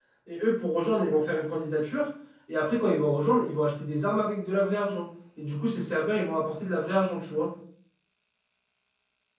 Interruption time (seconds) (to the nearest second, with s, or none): none